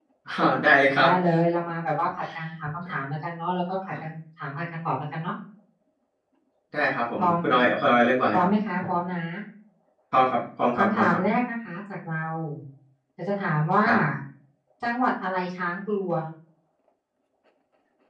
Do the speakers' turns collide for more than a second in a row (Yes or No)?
No